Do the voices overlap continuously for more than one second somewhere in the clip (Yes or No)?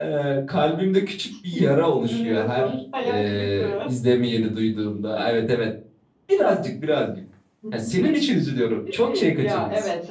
Yes